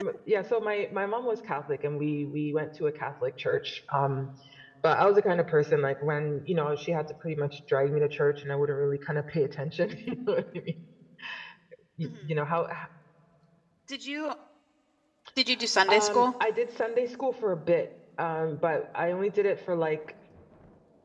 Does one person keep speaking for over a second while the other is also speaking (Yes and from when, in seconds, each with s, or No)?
No